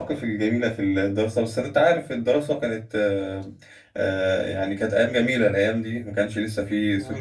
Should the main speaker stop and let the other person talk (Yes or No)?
No